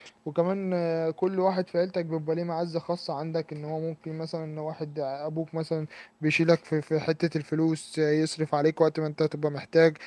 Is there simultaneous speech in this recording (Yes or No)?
No